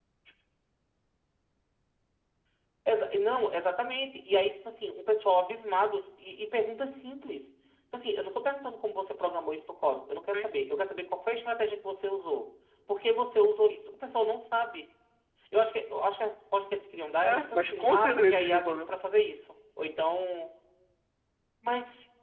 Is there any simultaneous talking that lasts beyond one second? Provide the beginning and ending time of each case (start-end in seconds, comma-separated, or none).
17.2-18.8